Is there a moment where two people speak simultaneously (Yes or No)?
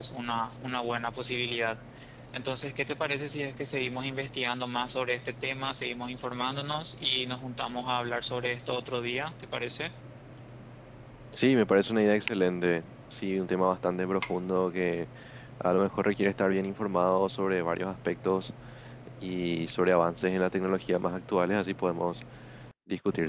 No